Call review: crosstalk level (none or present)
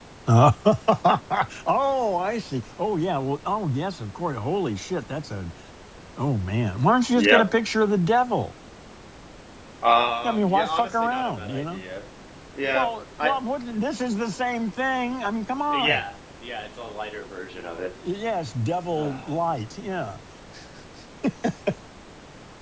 present